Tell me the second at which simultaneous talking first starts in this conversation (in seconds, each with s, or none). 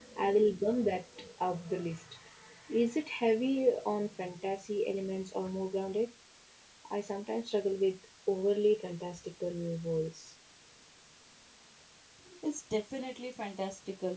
none